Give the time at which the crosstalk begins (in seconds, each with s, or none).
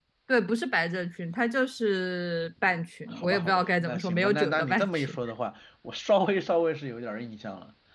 3.1 s